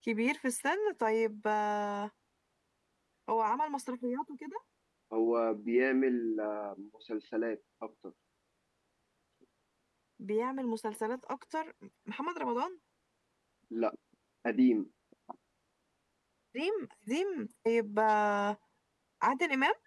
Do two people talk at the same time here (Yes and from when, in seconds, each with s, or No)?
No